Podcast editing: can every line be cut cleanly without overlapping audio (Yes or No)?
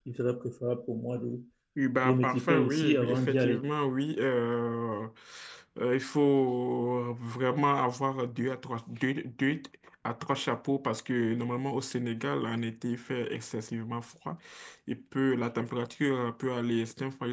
No